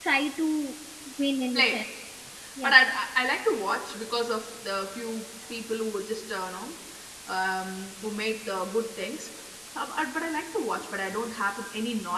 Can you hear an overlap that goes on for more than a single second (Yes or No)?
No